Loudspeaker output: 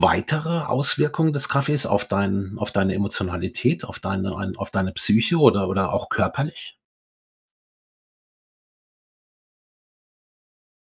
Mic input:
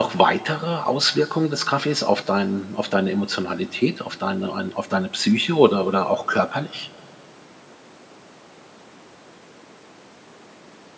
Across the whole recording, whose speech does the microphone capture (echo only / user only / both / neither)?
echo only